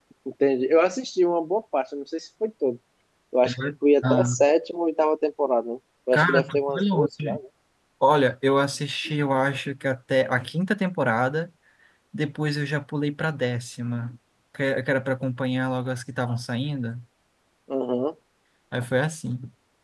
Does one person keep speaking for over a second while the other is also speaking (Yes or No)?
Yes